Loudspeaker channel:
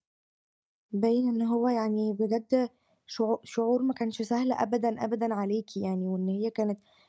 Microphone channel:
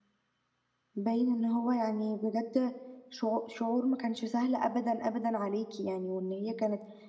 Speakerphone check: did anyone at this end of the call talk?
No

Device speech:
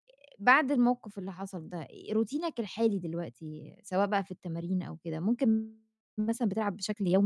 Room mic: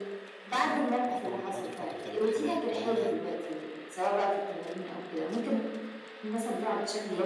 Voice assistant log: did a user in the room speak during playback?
Yes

